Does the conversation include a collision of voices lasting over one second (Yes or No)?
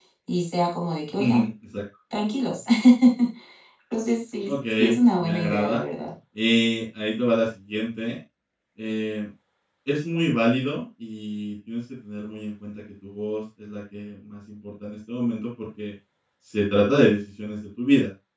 Yes